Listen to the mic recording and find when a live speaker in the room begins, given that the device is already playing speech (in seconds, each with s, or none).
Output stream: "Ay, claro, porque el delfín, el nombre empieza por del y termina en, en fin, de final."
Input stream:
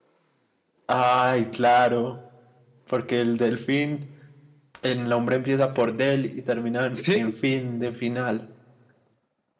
7.0 s